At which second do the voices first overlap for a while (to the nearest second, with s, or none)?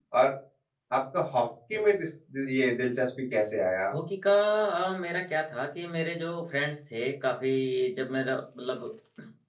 none